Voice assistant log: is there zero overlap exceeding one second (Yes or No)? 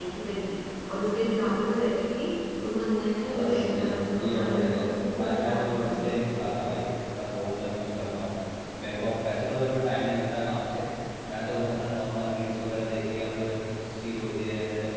No